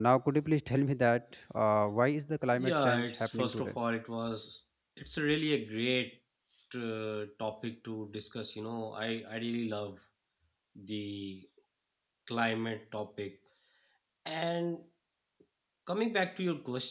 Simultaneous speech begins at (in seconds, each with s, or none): 2.5 s